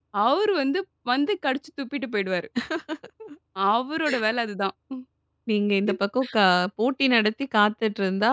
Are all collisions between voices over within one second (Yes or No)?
Yes